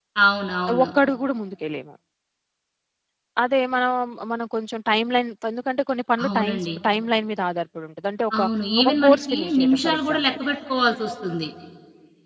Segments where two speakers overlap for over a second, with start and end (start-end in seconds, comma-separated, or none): 8.8-10.2